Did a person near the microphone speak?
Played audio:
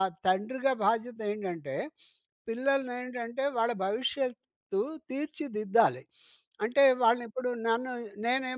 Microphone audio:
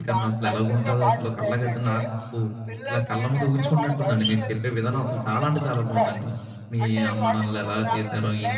Yes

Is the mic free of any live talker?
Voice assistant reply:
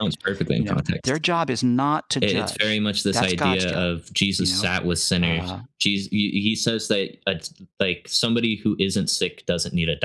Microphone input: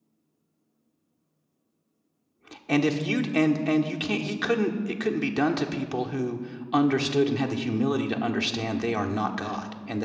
No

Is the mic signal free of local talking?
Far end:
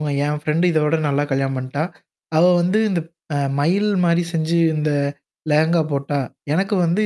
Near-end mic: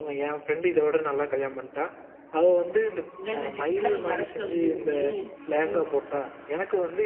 No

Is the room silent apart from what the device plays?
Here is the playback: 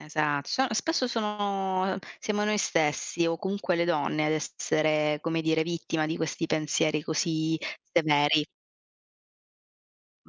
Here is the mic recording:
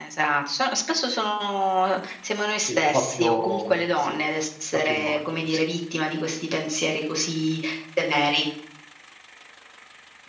No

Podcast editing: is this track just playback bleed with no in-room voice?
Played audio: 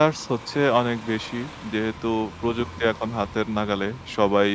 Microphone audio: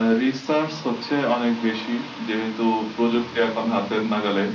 Yes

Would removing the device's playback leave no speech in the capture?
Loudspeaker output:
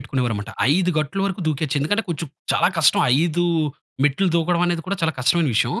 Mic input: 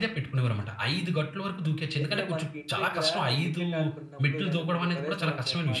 No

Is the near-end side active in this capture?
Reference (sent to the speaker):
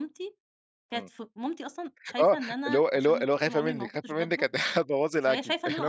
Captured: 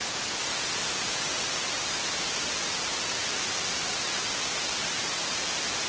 No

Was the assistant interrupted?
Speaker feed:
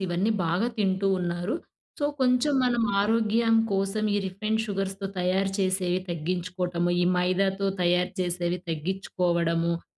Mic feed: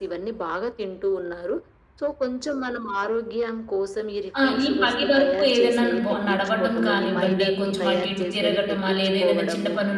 Yes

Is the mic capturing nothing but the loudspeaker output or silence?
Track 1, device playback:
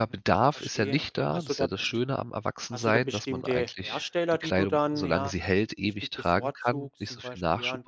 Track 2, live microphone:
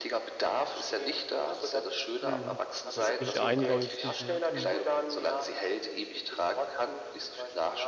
No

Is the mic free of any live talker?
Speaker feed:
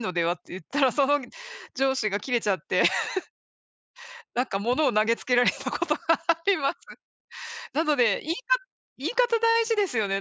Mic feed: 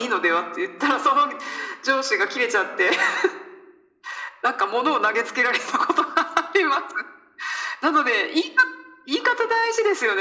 Yes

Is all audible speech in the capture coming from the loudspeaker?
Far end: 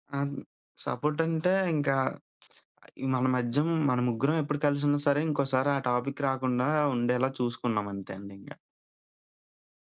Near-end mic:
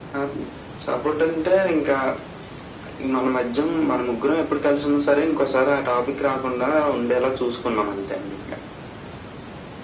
Yes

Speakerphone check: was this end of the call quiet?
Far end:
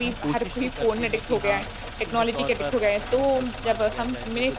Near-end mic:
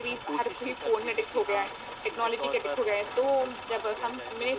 Yes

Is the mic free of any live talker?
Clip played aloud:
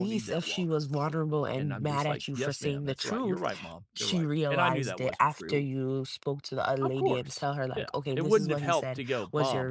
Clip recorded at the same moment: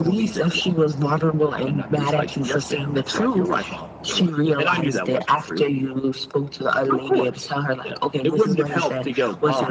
Yes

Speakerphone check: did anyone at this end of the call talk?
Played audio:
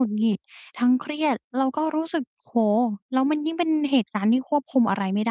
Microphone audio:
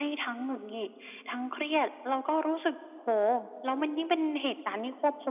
No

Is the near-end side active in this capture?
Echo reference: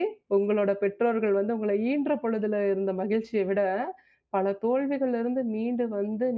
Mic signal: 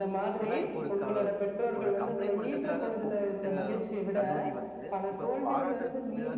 Yes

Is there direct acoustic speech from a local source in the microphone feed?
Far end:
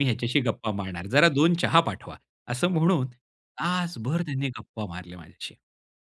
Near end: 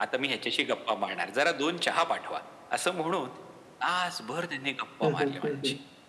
Yes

